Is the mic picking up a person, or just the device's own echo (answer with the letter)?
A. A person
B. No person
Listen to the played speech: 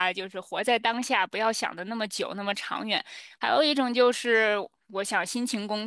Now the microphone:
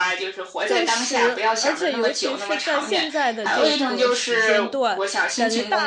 A